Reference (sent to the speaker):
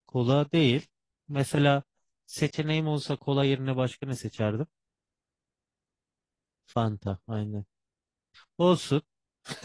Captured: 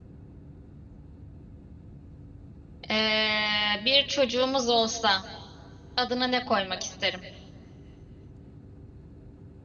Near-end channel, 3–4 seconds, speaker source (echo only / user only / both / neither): user only